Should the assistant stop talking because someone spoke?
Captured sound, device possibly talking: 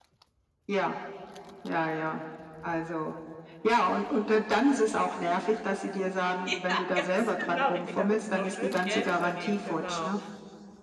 Yes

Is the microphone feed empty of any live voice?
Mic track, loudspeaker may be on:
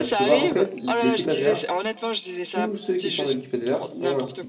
No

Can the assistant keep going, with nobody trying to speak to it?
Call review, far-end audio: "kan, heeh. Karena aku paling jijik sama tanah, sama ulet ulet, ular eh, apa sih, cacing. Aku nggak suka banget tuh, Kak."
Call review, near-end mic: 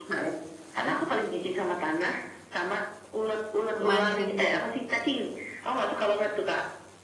No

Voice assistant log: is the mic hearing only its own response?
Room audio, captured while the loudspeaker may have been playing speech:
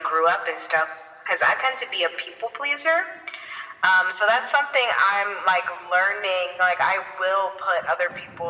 Yes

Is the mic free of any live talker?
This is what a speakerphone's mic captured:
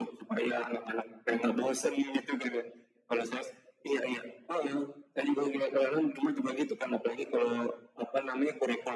Yes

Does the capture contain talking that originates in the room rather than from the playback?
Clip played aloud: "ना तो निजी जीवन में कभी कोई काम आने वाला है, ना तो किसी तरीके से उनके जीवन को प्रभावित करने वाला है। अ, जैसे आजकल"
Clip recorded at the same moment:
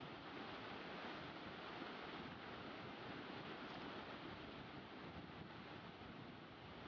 No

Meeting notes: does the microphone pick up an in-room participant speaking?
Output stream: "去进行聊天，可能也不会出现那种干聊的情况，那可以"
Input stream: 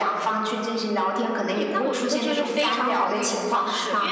Yes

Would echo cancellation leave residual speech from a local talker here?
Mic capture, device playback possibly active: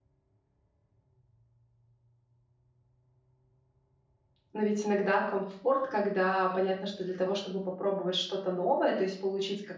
Yes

